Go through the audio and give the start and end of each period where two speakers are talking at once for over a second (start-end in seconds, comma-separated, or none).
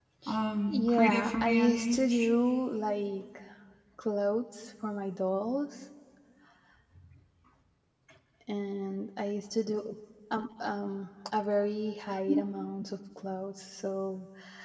0.7-2.3